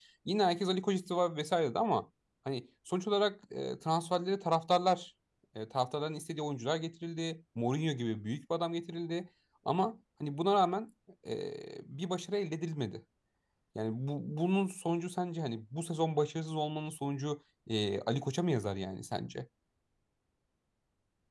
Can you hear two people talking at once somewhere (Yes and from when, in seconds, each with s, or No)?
No